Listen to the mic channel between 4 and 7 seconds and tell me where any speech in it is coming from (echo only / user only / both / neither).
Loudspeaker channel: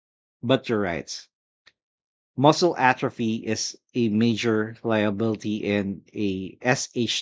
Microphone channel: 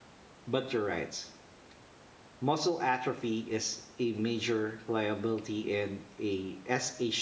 echo only